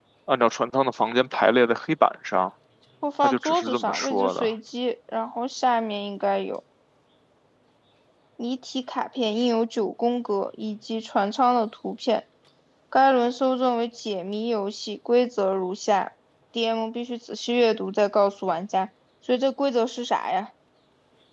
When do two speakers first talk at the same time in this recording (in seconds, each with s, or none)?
3.2 s